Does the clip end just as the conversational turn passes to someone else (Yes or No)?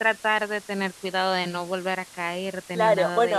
Yes